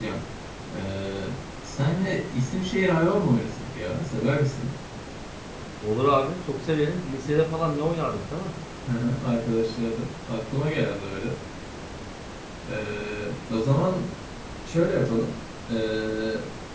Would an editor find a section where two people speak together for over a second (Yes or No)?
No